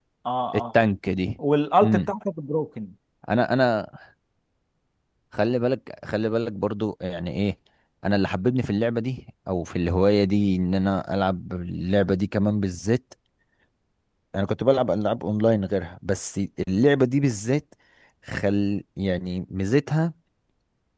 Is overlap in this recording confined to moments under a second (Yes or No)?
Yes